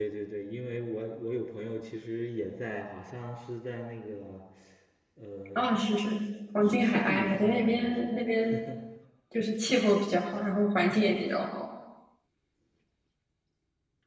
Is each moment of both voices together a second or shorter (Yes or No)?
No